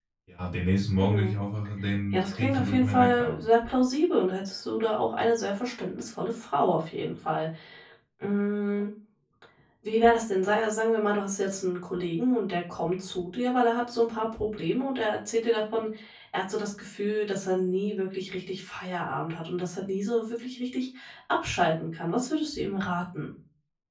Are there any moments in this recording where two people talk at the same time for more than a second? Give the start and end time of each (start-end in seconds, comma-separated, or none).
2.1-3.4